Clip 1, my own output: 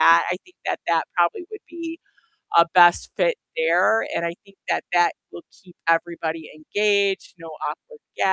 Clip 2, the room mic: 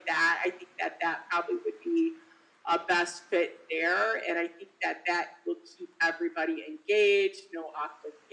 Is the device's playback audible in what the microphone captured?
Yes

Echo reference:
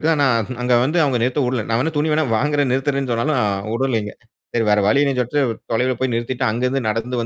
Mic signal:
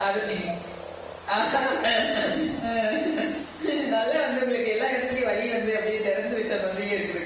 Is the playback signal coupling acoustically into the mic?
No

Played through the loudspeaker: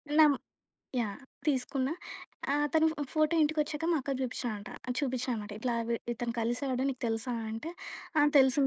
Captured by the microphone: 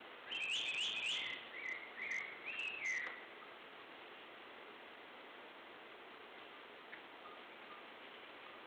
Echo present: No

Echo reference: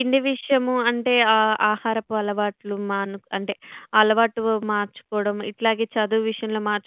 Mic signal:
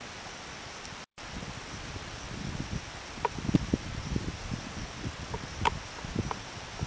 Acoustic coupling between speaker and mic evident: No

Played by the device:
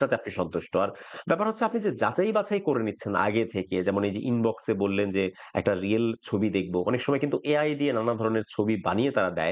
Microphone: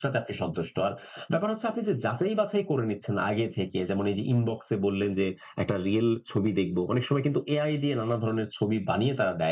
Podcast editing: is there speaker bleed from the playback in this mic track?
Yes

